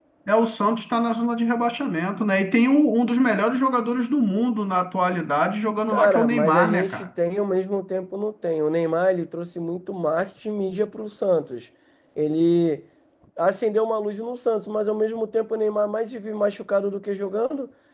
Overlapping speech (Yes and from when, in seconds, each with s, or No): Yes, from 5.9 s